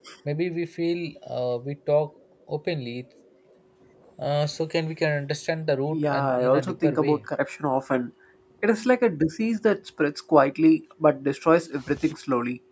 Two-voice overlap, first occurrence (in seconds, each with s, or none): 5.9 s